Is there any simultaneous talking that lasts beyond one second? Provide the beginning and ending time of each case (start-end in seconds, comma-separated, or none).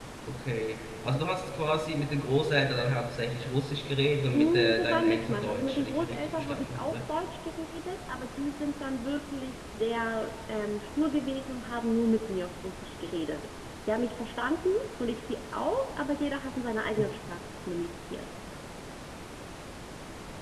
4.3-7.0